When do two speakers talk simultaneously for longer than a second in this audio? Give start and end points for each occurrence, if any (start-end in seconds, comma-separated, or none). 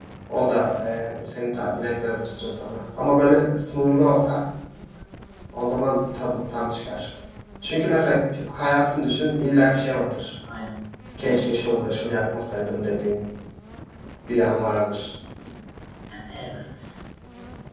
none